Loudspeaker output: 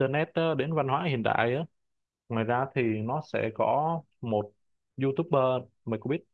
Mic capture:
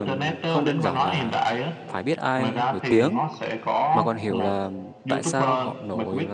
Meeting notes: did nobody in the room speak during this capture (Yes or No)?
No